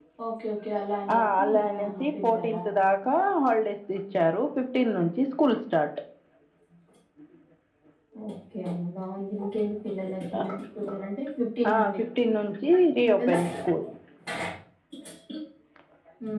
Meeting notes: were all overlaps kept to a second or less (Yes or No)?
No